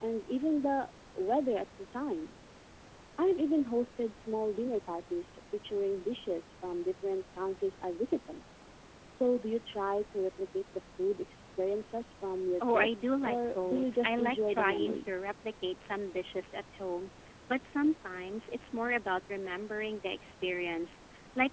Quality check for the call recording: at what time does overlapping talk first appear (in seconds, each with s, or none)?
12.6 s